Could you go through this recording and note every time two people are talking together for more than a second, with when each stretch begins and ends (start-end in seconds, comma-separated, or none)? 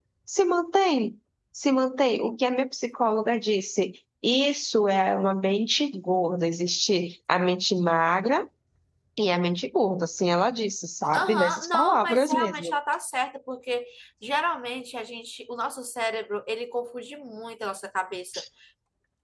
11.2-12.8